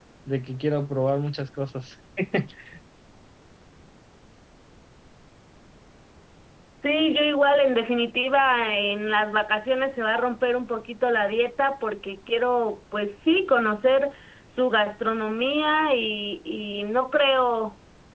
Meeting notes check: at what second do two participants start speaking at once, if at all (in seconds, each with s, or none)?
none